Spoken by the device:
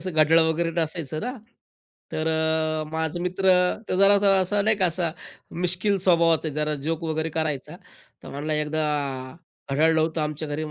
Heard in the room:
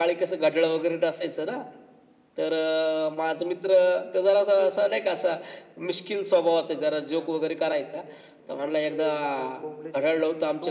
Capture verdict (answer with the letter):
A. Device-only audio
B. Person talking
B